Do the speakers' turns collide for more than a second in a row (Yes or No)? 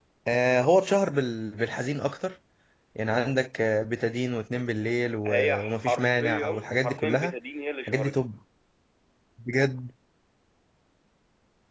Yes